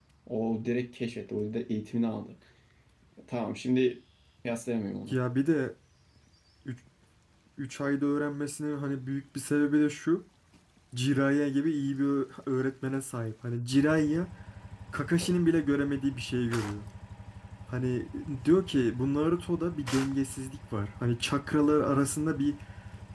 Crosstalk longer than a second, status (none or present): none